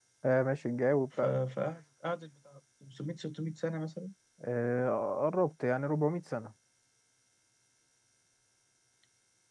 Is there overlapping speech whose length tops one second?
No

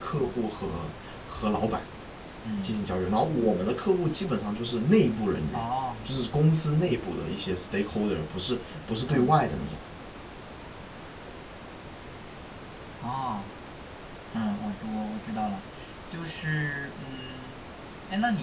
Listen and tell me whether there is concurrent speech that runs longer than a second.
No

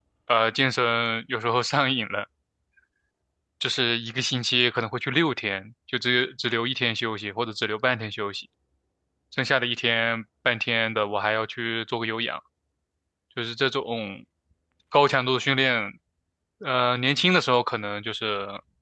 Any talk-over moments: No

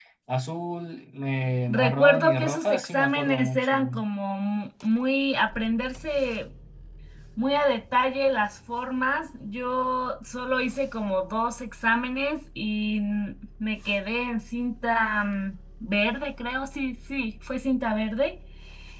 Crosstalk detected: Yes, from 1.7 s

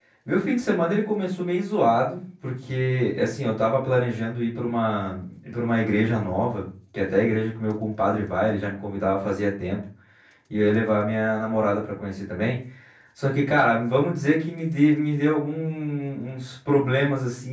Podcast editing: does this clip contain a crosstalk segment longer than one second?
No

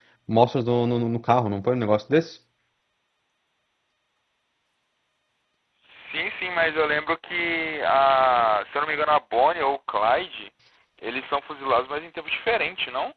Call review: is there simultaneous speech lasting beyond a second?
No

